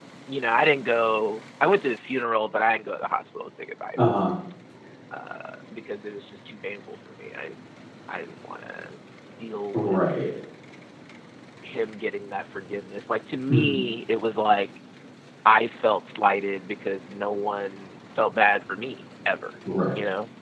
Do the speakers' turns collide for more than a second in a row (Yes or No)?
No